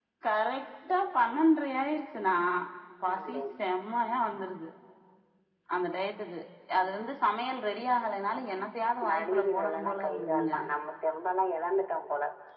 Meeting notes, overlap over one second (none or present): present